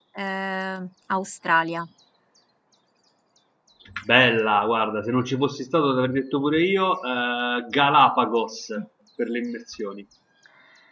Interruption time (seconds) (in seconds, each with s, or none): none